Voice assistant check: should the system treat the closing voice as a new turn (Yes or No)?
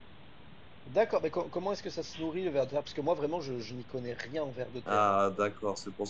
Yes